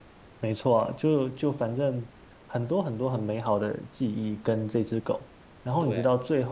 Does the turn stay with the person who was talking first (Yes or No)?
Yes